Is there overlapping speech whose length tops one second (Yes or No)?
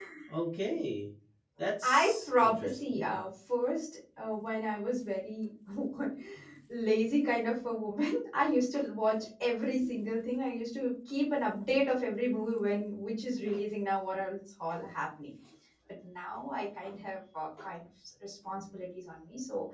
Yes